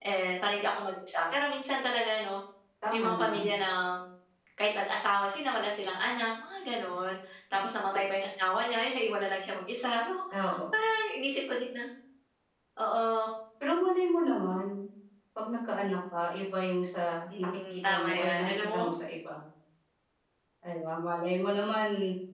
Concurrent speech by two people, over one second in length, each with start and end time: 17.4-18.9

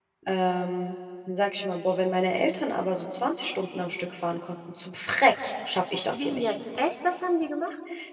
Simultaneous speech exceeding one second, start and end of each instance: none

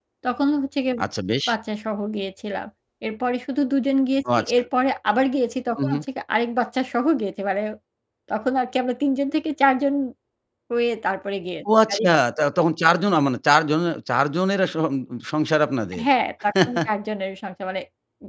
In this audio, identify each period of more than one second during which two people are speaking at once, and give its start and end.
none

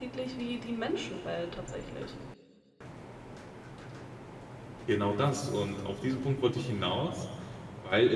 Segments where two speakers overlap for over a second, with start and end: none

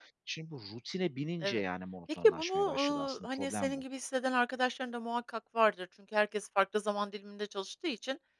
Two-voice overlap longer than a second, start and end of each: 2.2-3.8

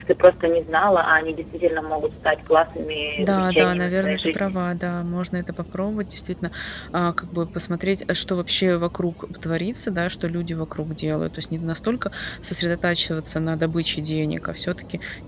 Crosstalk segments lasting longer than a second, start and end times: 3.2-4.5

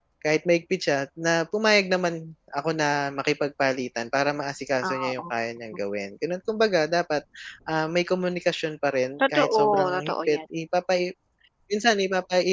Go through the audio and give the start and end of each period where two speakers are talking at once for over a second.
9.2-10.4

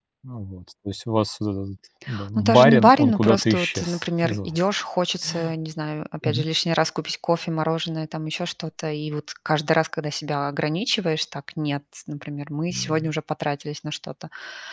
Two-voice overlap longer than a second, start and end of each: 2.4-4.6

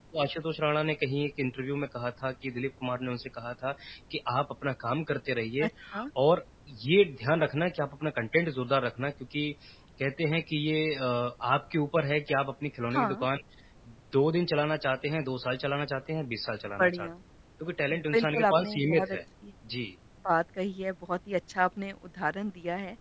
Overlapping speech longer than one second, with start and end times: 17.9-19.2

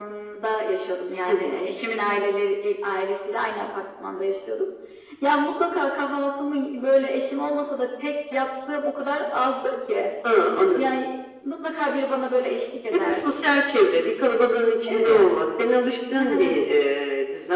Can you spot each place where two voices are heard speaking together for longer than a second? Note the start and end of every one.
none

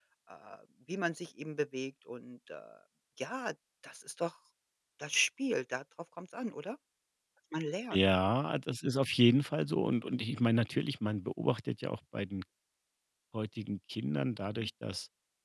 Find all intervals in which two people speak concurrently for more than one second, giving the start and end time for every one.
none

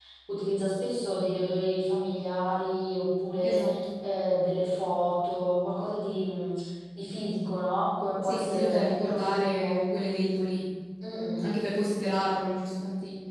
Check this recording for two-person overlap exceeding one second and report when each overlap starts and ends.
8.2-9.8

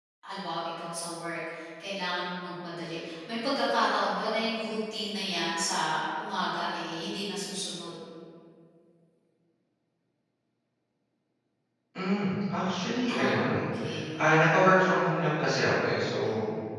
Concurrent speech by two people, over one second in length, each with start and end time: none

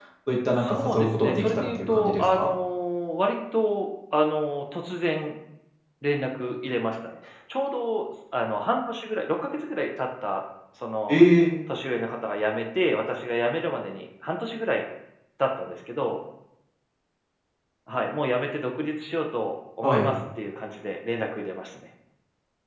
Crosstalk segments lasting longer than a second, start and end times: 0.6-2.5

